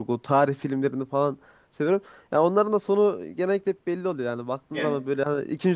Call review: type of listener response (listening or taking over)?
listening